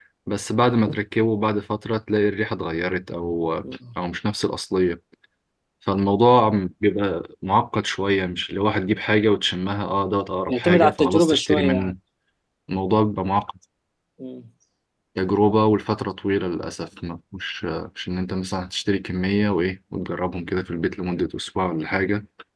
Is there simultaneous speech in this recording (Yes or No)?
Yes